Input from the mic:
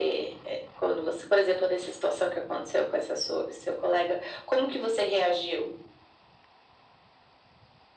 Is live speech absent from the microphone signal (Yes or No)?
Yes